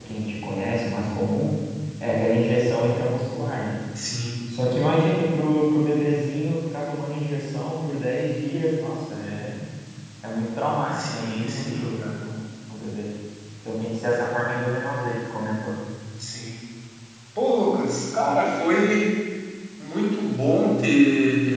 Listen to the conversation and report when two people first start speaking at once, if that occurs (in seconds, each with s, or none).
10.9 s